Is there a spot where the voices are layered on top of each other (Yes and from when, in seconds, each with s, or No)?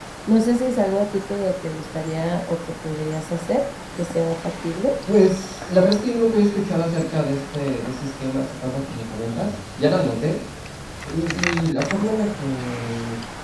No